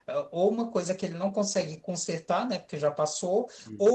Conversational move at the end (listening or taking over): listening